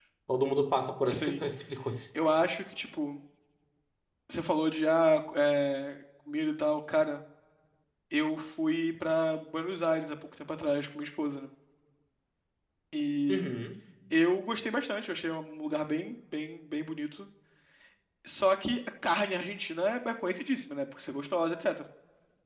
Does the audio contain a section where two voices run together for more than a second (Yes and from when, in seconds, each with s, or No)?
No